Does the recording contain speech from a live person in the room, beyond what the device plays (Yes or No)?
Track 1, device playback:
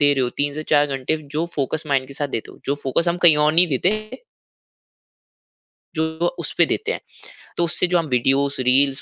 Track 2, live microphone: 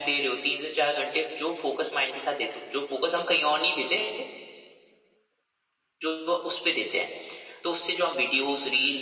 No